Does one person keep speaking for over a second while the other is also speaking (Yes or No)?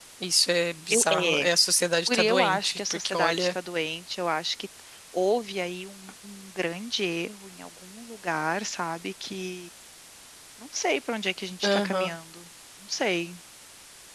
Yes